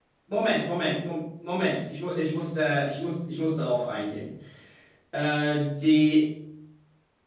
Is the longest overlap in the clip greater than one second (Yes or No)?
No